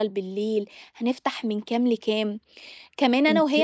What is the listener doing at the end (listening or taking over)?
listening